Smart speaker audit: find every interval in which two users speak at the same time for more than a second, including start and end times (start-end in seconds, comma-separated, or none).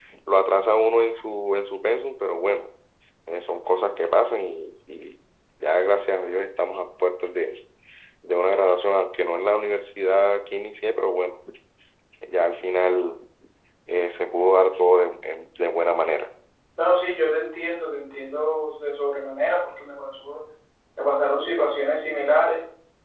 none